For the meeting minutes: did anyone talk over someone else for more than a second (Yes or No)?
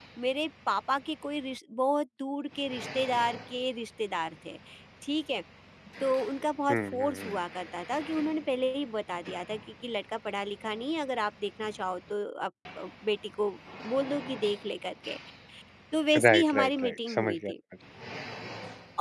Yes